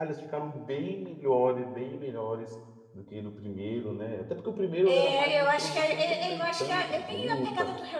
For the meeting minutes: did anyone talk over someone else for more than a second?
Yes, from 4.9 s

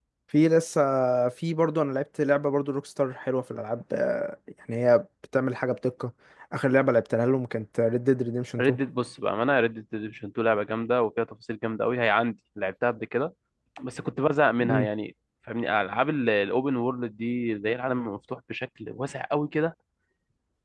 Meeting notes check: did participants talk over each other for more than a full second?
No

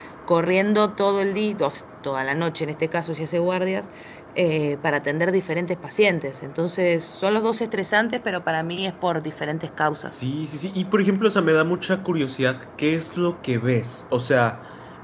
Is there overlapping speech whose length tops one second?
No

